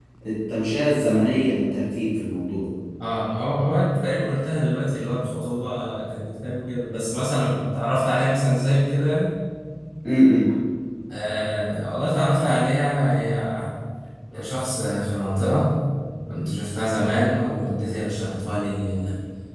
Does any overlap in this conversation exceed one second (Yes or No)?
No